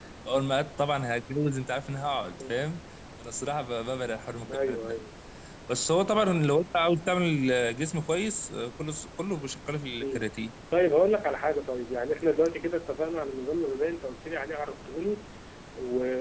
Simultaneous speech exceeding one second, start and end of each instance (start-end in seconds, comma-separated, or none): none